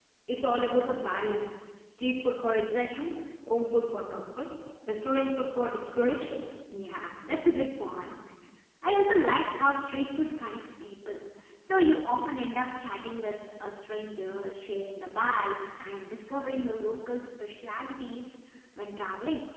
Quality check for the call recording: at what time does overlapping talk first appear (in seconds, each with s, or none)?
none